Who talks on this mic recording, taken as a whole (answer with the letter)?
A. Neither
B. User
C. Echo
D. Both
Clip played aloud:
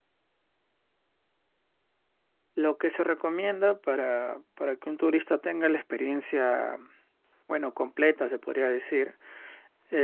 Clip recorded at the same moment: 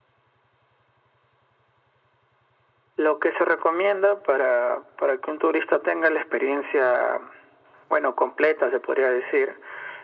C